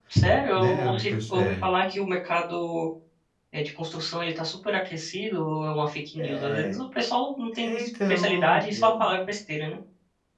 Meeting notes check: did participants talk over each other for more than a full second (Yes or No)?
Yes